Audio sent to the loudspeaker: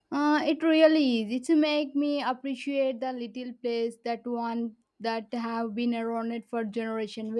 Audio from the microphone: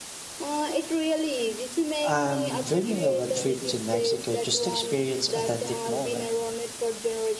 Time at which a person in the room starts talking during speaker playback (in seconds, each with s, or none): 2.0 s